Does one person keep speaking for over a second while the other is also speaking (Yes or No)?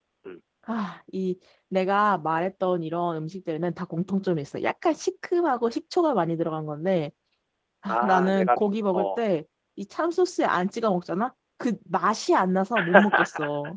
Yes